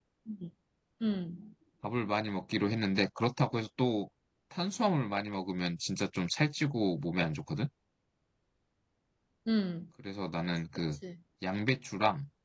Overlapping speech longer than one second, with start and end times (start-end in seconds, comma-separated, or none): none